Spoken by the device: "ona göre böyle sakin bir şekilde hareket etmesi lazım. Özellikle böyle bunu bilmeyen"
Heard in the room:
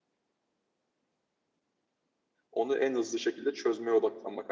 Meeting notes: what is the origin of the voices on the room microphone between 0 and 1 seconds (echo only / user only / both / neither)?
neither